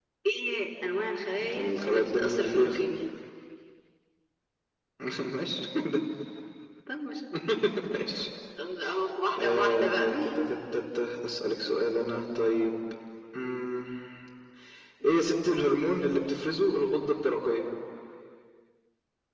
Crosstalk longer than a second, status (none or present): present